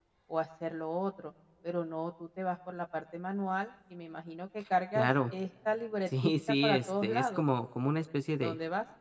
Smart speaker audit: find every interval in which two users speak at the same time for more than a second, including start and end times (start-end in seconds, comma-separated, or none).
6.2-7.4